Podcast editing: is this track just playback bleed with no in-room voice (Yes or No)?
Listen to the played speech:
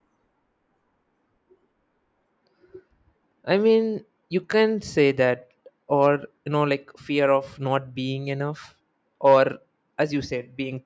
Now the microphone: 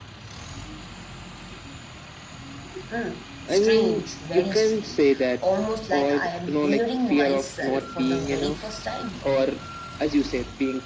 No